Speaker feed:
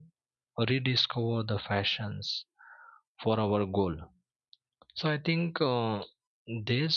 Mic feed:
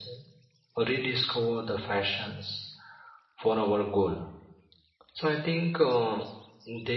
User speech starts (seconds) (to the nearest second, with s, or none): none